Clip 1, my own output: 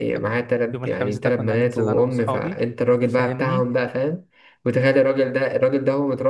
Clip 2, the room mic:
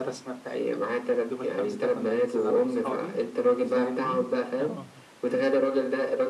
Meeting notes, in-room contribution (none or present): present